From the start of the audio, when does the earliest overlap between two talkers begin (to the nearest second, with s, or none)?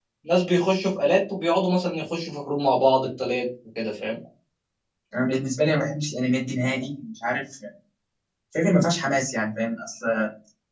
none